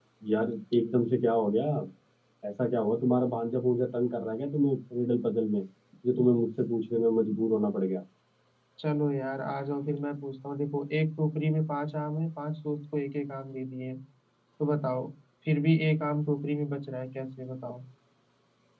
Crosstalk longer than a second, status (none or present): none